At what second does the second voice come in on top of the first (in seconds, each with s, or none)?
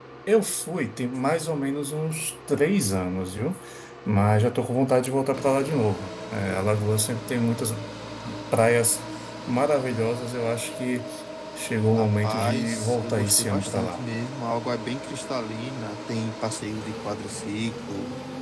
12.0 s